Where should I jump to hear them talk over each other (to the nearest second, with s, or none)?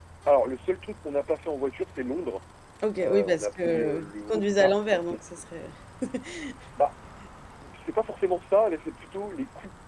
3 s